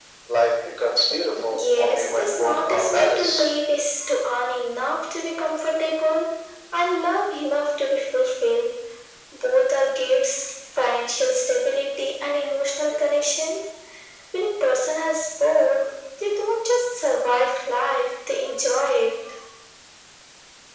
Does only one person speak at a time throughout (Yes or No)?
No